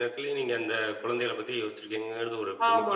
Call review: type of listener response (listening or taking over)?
taking over